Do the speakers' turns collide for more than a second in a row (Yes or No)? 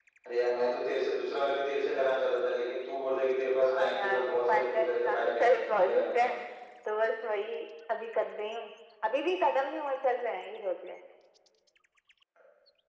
Yes